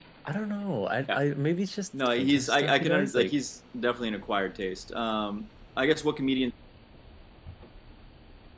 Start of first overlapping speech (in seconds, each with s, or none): 2.0 s